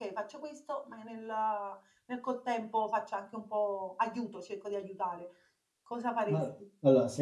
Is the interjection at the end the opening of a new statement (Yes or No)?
Yes